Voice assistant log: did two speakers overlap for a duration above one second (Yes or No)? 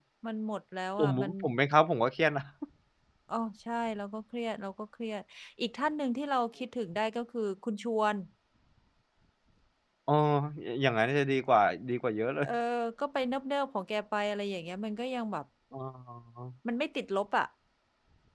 No